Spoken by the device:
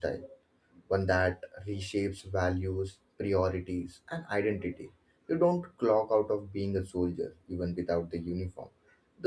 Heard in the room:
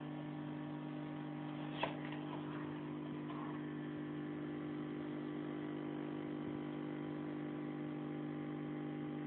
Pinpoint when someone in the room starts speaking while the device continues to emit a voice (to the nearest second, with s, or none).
none